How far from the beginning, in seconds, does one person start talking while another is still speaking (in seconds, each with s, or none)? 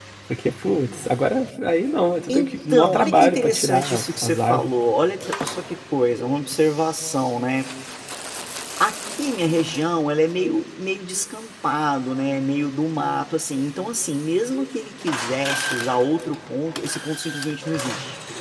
2.3 s